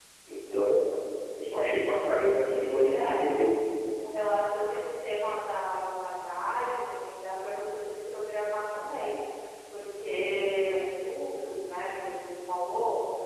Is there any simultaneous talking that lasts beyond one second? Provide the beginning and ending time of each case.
2.3-3.5

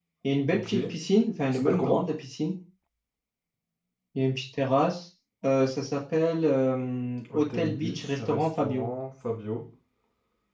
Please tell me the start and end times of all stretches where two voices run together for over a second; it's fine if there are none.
7.3-8.9

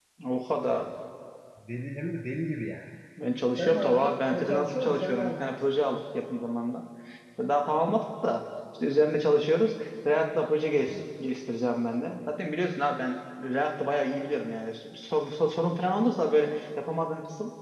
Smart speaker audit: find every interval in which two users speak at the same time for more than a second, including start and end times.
3.6-5.6

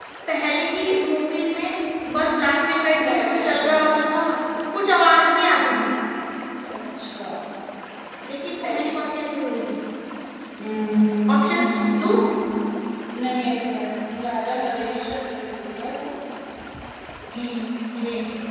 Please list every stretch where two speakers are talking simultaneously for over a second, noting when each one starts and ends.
3.0-4.2

